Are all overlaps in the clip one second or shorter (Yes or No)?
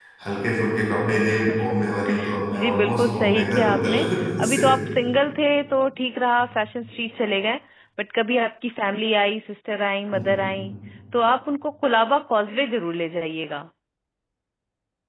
No